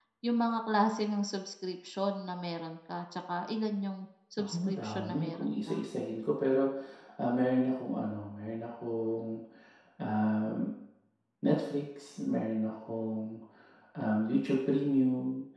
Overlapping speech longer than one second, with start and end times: 4.4-5.8

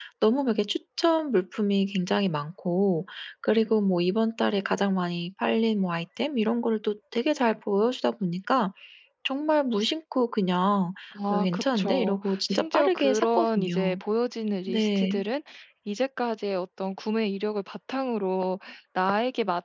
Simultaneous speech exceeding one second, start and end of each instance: 11.3-14.0

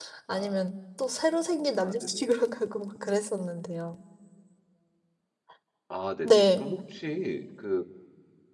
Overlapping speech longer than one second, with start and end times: none

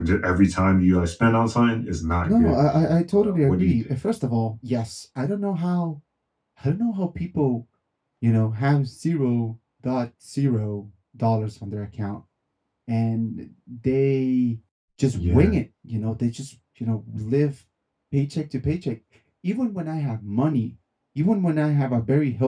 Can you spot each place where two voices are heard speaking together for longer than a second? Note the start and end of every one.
2.2-3.7

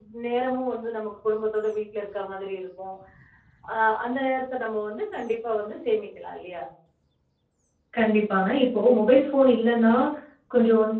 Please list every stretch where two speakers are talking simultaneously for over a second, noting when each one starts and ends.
none

